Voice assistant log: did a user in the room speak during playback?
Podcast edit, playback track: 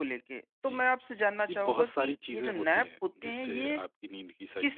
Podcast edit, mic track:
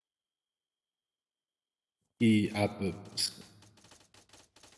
Yes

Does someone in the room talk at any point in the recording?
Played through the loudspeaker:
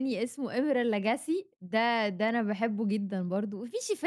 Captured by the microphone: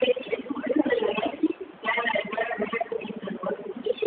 No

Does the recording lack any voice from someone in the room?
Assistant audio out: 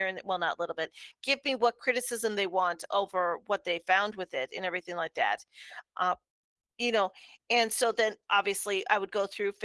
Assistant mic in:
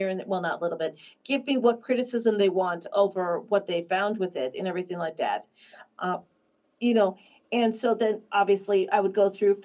Yes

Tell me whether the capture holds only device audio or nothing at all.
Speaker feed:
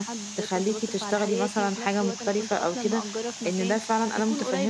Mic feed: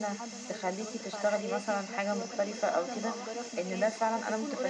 No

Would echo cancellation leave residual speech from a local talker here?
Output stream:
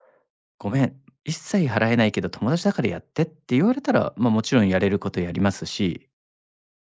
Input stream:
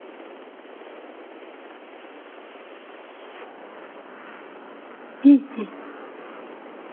Yes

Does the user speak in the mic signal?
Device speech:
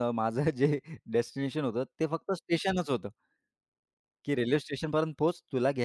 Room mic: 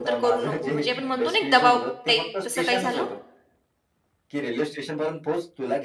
Yes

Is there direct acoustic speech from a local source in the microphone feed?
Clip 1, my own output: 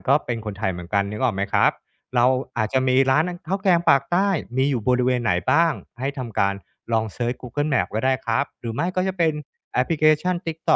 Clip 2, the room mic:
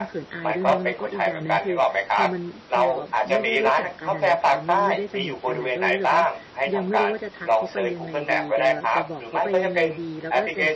Yes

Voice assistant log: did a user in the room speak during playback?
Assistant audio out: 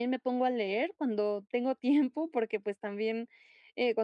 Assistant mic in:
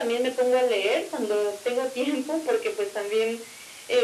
No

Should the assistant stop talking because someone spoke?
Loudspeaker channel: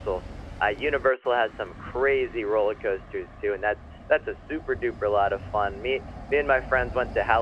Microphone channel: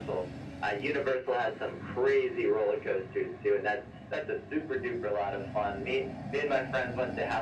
No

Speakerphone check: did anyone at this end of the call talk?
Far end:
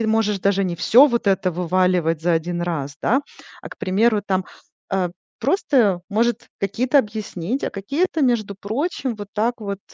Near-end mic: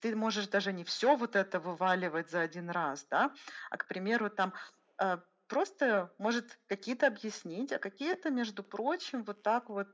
No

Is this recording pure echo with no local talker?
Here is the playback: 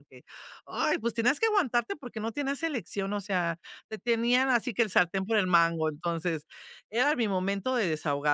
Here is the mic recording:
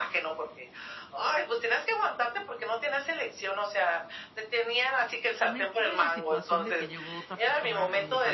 No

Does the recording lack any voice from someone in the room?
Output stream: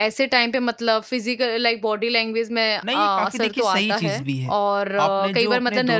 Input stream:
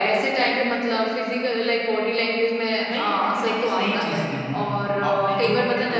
Yes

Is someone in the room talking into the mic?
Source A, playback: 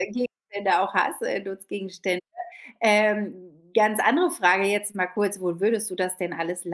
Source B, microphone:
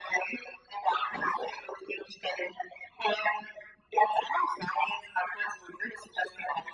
No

